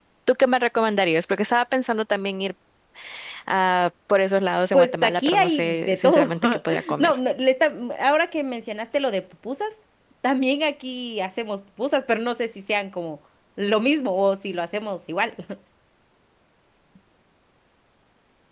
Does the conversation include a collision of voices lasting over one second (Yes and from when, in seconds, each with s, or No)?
Yes, from 4.7 s